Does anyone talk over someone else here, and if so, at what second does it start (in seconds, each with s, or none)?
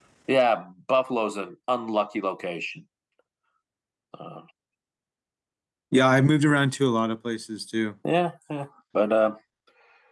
none